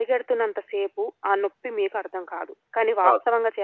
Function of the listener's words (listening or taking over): listening